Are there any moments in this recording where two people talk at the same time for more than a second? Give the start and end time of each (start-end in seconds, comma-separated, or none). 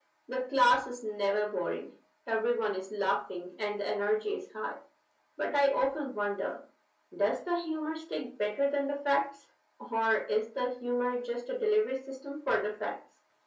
none